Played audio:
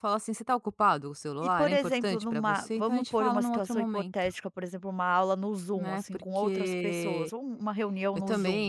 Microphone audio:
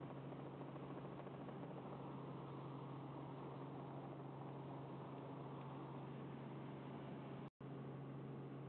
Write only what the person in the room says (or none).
none